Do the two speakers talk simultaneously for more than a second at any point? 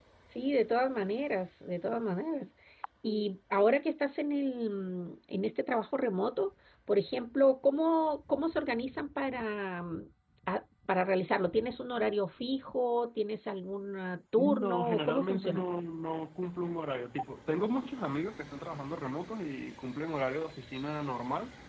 Yes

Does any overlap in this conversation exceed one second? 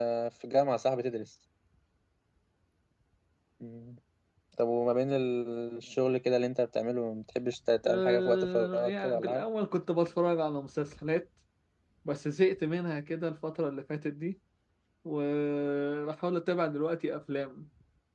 Yes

